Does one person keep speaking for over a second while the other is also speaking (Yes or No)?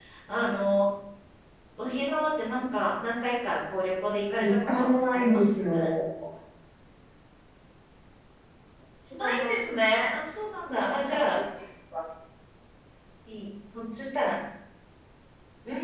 Yes